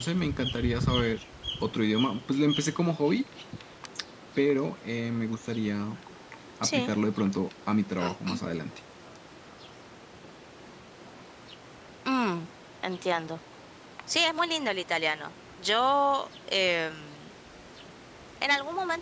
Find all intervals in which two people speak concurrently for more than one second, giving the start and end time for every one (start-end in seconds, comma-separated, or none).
none